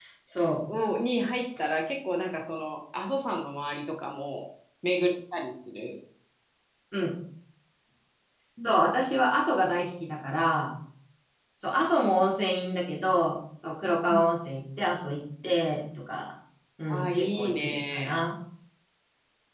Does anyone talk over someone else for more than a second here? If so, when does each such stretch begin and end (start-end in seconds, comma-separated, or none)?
16.9-18.1